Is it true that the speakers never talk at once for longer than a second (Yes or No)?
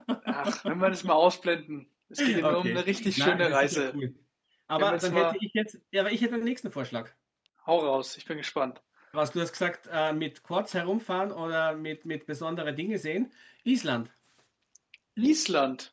No